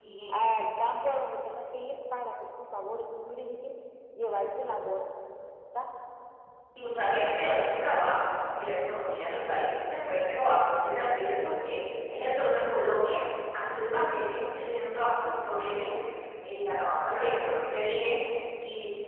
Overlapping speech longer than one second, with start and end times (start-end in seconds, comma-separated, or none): none